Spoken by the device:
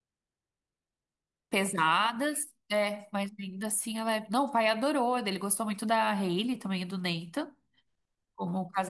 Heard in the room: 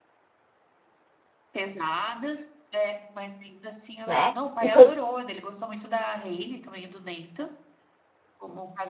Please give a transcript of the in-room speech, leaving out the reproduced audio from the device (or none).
né? E quando.